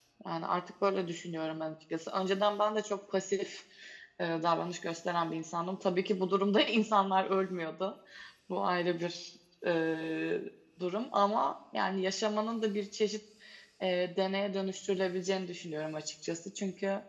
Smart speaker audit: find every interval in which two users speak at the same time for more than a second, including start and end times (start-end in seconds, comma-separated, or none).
none